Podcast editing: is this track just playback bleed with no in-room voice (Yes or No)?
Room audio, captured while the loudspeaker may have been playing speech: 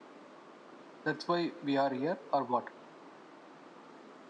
No